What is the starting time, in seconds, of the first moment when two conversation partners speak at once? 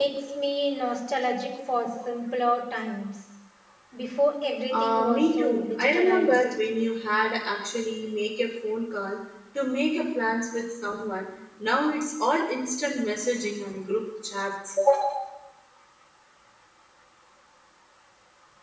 4.7 s

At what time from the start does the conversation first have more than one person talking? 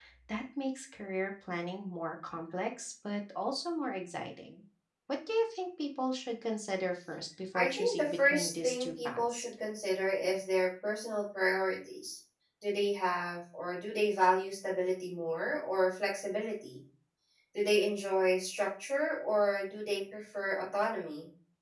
7.5 s

